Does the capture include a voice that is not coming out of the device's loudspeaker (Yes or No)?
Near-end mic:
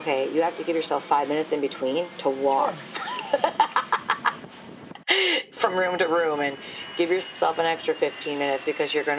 Yes